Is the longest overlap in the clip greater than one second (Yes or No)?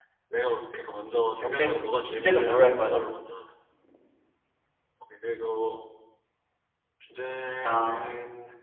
Yes